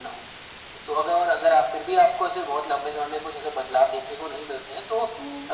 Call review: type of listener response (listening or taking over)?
listening